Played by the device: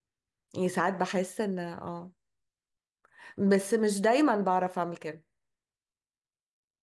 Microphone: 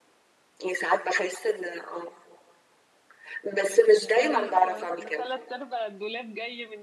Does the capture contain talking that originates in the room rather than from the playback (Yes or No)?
Yes